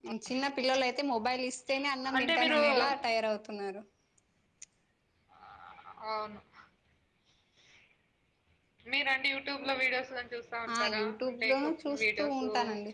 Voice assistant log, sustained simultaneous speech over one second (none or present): present